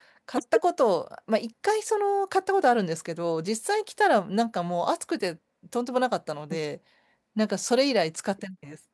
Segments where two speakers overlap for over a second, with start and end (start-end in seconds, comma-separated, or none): none